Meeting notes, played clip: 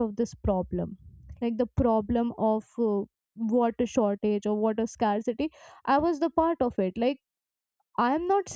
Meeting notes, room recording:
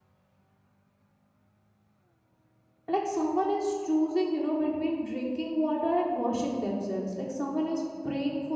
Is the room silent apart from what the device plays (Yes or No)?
No